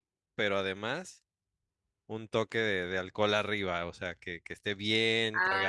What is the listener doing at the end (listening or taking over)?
taking over